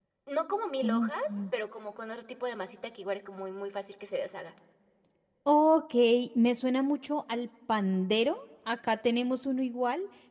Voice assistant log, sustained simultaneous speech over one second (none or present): none